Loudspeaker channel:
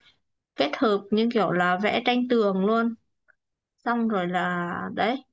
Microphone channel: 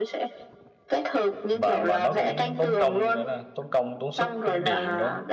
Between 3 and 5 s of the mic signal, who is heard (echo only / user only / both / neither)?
both